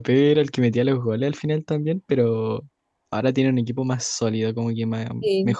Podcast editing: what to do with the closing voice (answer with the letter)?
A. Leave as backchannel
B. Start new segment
A